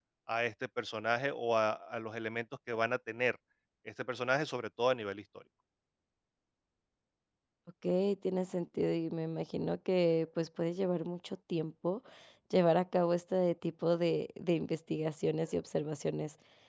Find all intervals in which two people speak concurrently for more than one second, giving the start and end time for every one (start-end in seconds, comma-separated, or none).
none